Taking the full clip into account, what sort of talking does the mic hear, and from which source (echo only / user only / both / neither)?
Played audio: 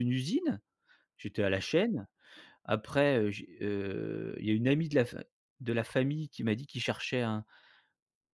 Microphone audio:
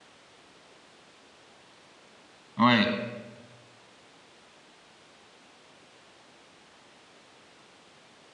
user only